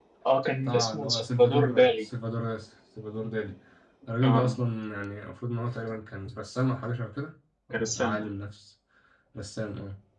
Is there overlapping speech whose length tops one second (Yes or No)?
Yes